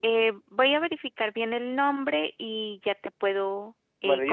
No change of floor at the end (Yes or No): No